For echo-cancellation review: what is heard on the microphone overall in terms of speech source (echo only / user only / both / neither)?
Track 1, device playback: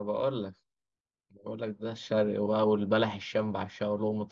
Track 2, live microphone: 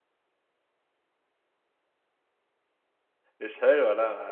user only